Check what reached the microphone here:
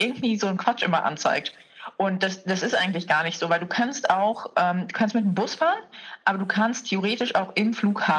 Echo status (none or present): present